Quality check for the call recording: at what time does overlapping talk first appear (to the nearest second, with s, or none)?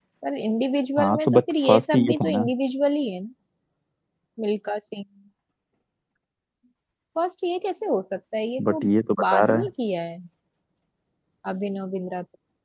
1 s